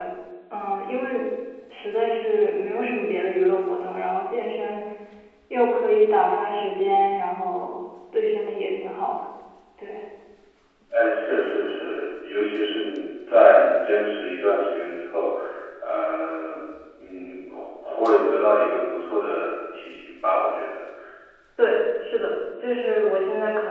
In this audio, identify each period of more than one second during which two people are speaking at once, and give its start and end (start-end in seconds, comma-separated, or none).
none